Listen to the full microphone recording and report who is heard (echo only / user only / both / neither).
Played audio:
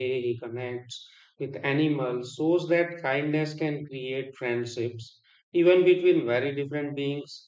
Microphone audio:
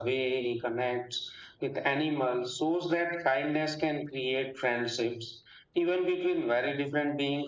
echo only